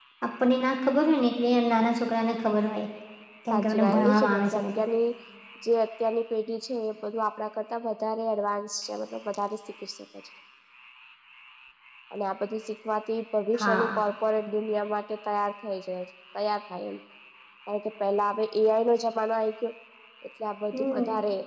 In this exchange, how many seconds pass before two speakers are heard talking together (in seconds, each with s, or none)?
3.5 s